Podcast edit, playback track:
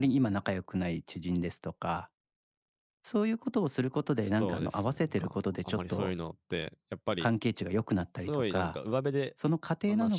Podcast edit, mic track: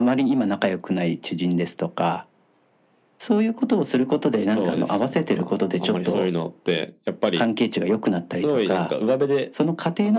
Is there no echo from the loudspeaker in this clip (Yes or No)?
No